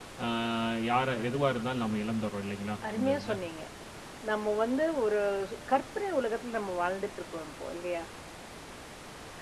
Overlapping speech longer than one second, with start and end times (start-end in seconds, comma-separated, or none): none